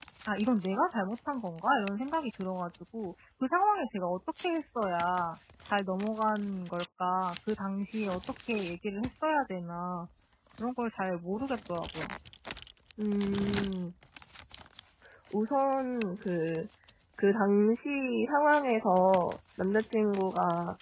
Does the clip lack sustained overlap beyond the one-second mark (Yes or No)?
Yes